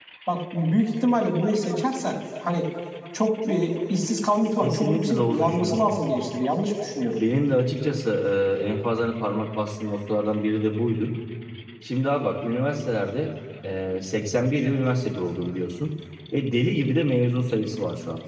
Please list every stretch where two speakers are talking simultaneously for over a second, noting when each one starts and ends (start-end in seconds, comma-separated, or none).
4.6-5.9